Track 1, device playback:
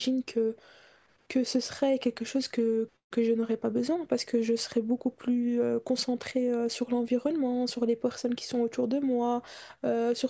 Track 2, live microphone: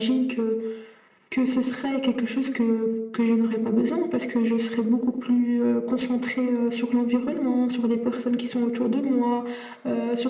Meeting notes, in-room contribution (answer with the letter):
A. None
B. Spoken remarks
A